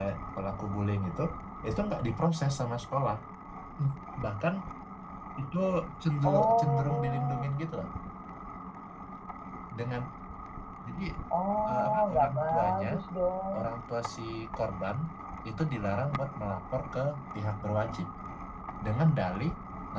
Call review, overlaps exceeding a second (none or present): present